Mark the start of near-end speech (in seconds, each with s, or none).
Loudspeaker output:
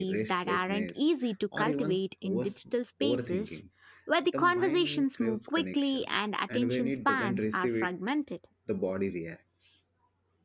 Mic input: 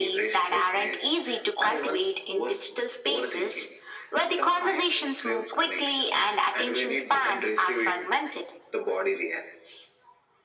none